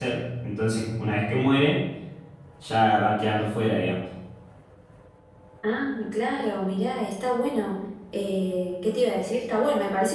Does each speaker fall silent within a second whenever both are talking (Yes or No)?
Yes